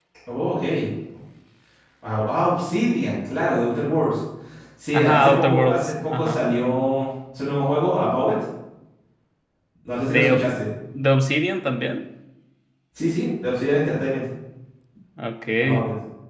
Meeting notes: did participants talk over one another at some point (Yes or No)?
Yes